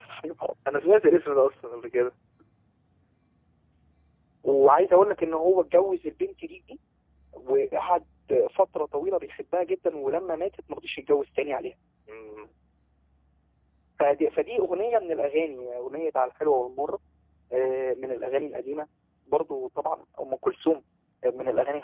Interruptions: none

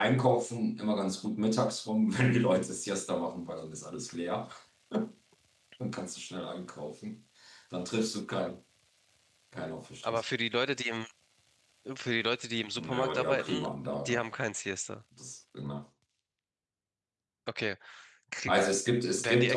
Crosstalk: present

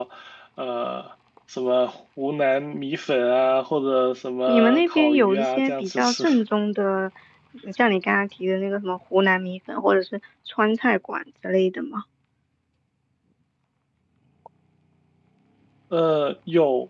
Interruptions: present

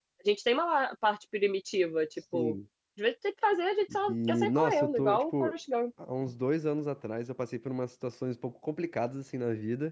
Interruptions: present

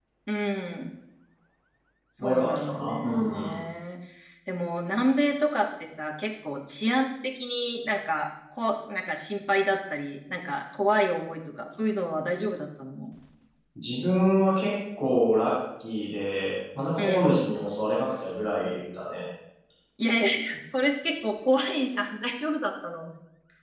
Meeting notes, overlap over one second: present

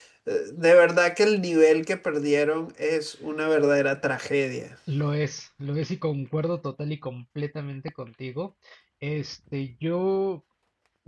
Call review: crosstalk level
none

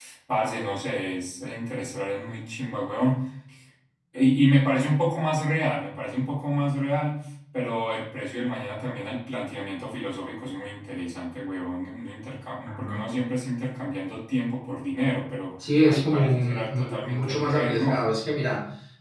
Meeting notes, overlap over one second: present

